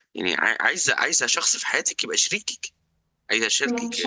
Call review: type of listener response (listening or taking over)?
taking over